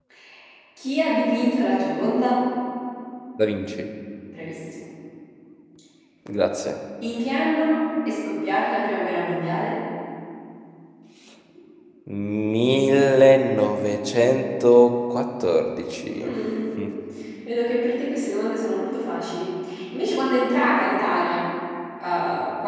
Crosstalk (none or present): none